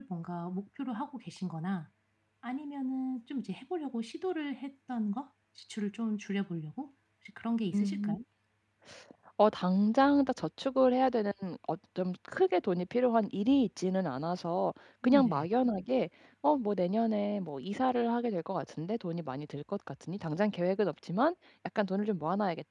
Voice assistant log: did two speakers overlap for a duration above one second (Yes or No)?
No